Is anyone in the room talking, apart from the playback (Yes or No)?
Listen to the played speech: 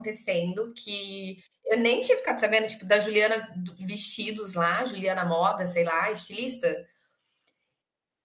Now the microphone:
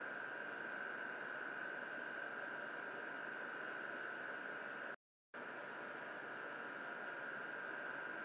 No